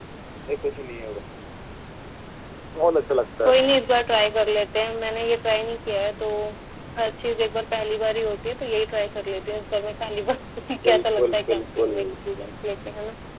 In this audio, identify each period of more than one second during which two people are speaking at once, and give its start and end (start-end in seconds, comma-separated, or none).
10.7-11.9